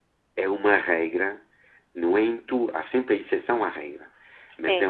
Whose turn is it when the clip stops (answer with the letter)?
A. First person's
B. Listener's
A